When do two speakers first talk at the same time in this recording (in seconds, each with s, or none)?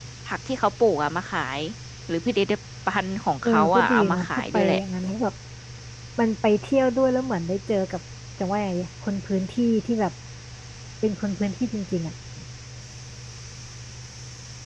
3.4 s